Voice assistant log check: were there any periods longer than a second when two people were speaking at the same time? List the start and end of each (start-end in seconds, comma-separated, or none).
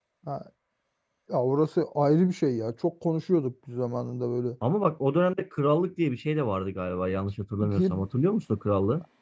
none